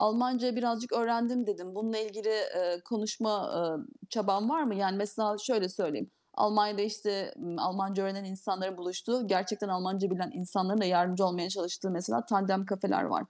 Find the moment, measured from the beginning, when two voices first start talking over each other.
none

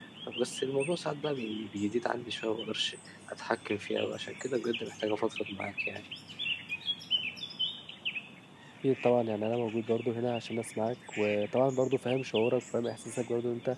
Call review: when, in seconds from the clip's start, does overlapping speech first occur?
none

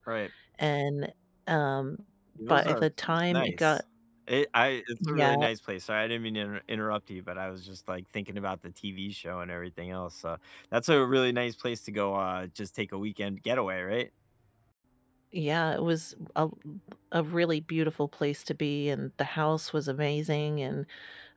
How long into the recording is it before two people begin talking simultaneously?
2.5 s

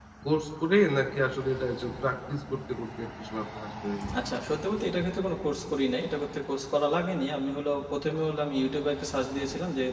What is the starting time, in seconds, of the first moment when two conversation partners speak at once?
none

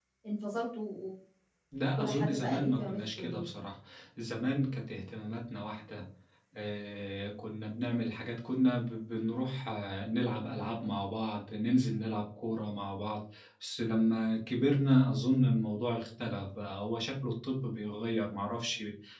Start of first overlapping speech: 2.0 s

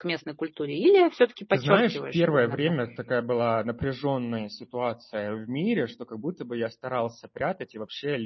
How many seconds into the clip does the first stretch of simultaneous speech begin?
1.5 s

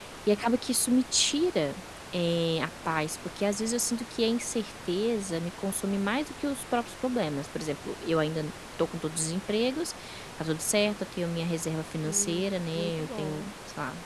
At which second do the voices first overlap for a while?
12.1 s

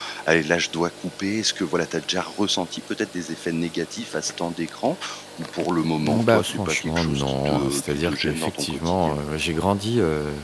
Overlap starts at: 6.0 s

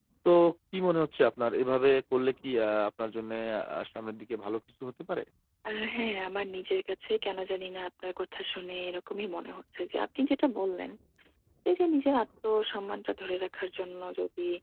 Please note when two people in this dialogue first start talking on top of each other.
none

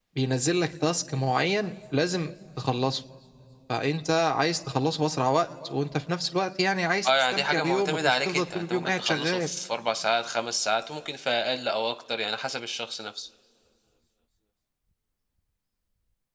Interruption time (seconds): 7.0 s

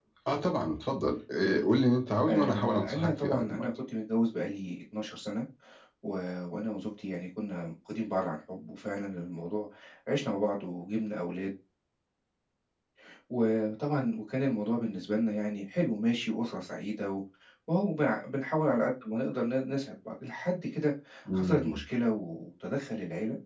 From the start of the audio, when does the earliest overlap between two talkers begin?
2.3 s

